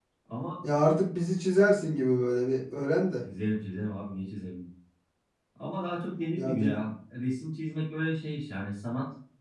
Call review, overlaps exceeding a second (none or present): none